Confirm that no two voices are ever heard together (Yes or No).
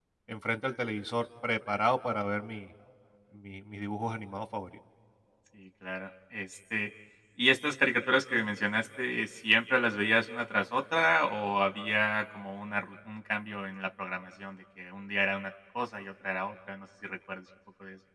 Yes